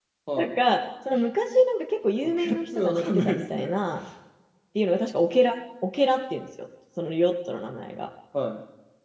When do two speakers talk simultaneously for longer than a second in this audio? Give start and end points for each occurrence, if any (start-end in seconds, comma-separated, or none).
2.2-3.6